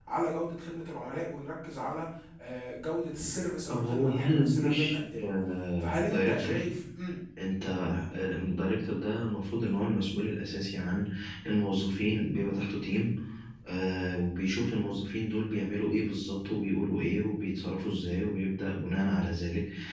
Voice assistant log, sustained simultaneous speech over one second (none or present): present